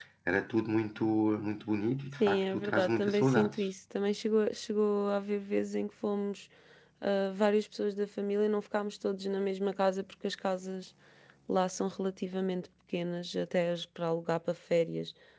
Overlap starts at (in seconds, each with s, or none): 2.2 s